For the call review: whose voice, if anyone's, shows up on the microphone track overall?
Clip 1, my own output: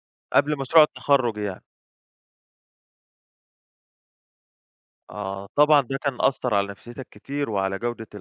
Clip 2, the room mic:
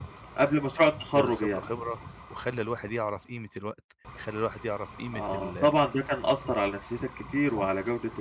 both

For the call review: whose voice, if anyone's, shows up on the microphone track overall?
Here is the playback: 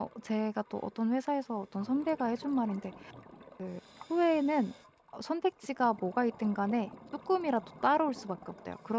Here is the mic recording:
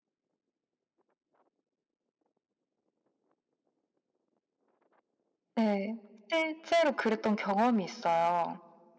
user only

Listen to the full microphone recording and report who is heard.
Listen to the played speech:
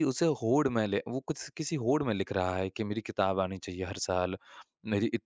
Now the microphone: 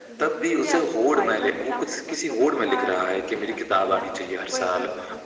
both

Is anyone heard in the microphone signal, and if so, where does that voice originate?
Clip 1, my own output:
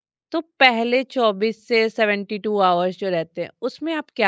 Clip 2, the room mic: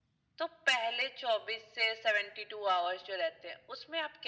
echo only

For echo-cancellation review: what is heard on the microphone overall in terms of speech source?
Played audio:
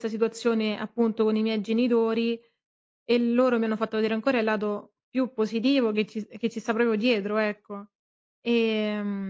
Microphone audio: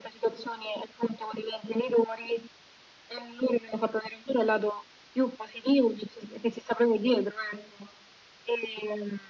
echo only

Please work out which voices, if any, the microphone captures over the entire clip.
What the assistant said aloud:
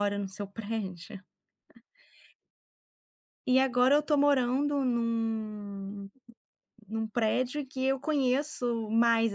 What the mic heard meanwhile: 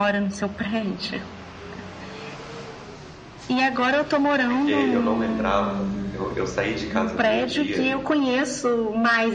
both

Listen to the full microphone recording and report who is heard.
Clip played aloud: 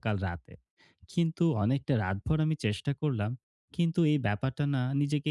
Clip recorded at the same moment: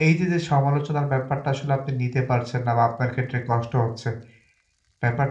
user only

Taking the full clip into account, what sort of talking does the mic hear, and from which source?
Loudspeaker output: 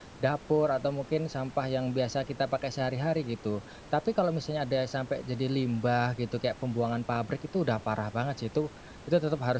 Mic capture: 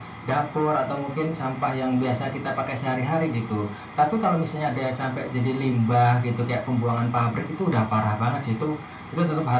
echo only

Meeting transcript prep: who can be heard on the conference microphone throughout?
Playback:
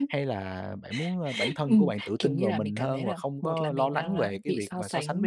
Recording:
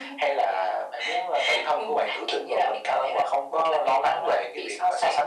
echo only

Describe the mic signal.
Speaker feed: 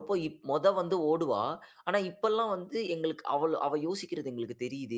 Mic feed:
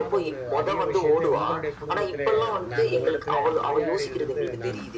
both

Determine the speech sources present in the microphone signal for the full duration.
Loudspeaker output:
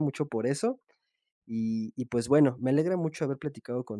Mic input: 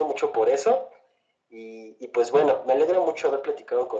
echo only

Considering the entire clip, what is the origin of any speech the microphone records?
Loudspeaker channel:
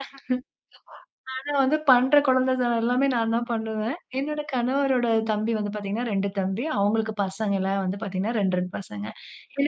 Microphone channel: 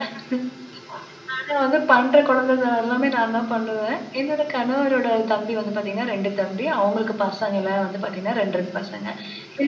echo only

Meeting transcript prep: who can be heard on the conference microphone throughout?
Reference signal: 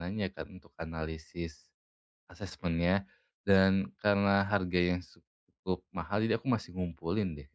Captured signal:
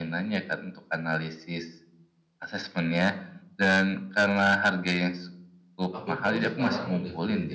both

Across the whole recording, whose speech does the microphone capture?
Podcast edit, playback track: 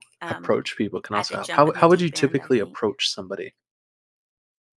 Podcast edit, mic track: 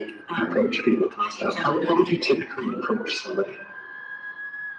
echo only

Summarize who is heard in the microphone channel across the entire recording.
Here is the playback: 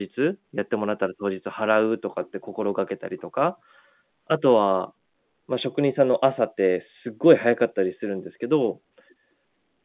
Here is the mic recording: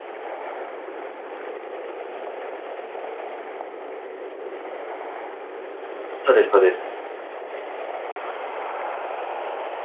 user only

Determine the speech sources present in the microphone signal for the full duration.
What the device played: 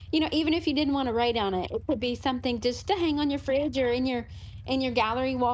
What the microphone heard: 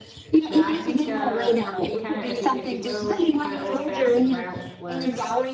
both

